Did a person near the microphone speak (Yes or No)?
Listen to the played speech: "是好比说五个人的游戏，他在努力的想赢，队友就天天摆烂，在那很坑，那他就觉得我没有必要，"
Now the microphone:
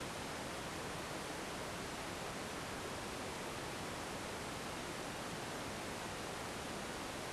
No